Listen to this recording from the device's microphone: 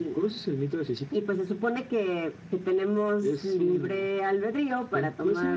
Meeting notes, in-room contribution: none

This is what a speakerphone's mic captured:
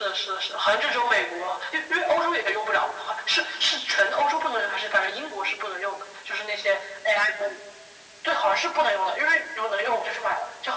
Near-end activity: none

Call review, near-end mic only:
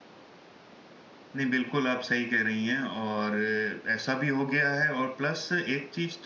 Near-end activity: present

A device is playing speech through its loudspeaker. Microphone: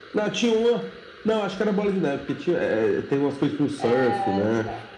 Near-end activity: present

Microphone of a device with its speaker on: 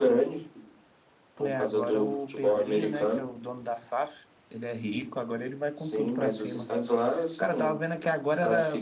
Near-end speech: present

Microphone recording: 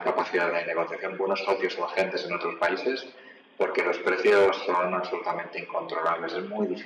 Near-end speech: none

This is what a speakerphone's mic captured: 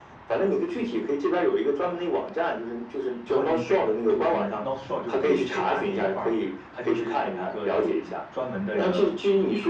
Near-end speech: present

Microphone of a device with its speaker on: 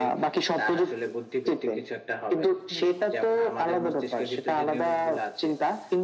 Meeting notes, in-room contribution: none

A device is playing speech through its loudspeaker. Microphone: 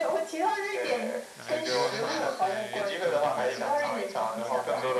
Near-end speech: present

